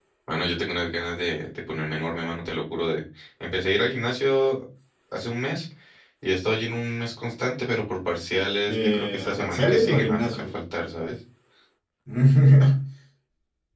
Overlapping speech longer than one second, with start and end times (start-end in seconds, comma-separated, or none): 8.7-10.4